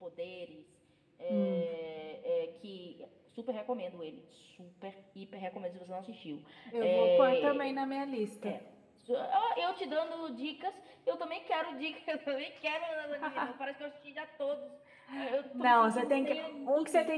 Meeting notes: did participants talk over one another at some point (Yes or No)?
Yes